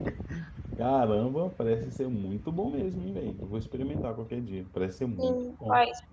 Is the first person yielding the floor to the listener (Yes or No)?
Yes